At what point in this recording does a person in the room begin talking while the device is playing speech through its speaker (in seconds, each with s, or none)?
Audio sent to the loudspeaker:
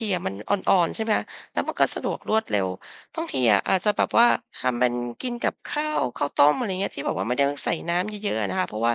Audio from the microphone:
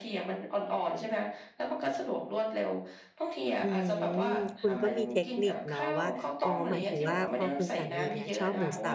3.6 s